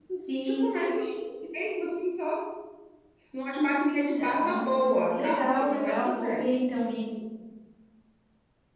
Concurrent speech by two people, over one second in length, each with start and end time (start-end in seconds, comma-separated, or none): 4.4-6.5